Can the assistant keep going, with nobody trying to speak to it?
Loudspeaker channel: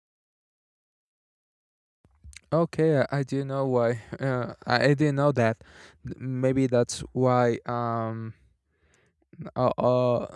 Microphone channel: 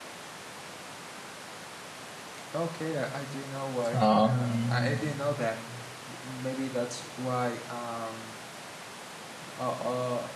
No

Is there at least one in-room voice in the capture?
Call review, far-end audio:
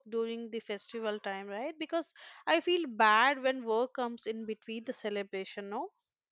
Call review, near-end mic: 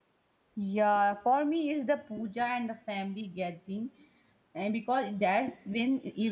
Yes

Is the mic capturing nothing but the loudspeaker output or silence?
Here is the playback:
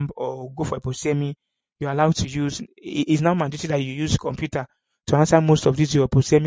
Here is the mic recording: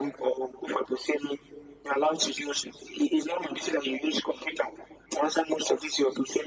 Yes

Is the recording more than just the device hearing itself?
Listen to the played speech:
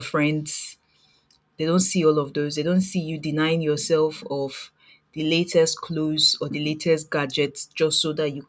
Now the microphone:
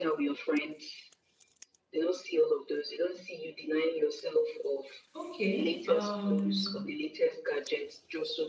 Yes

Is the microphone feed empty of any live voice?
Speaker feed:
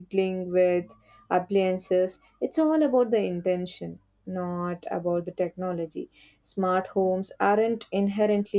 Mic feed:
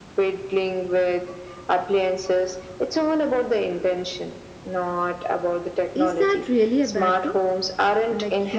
No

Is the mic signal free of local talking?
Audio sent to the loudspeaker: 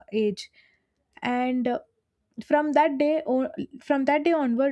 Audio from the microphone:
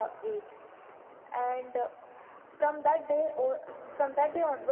Yes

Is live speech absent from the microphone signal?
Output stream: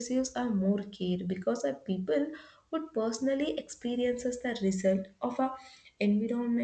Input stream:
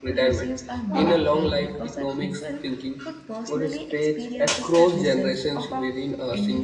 No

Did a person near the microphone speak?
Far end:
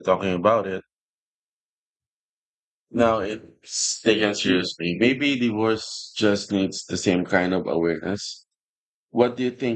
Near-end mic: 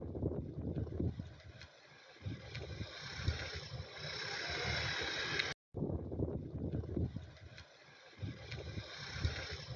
No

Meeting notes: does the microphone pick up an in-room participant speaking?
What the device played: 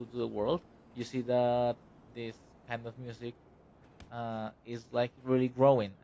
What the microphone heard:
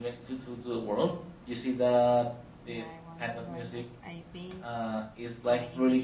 Yes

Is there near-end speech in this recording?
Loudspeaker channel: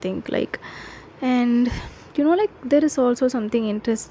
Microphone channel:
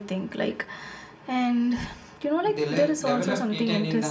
Yes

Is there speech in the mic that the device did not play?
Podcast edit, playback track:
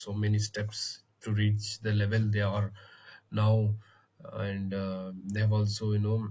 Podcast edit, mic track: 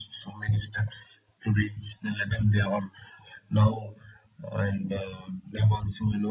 No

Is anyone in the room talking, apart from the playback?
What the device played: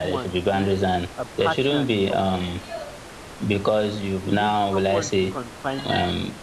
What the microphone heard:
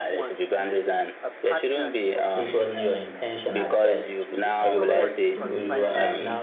Yes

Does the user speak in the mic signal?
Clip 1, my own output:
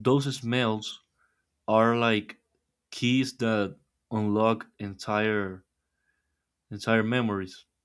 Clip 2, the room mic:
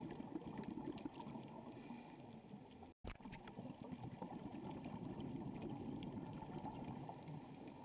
No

